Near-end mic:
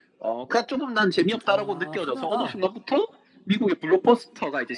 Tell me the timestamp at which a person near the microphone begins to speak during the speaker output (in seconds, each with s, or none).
1.4 s